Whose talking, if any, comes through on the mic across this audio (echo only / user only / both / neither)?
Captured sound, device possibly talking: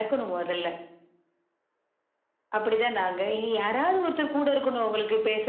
echo only